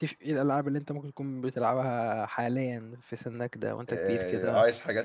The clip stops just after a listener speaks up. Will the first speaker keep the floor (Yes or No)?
No